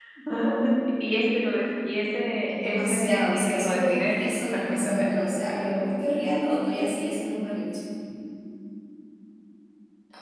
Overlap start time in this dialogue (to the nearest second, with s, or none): 2 s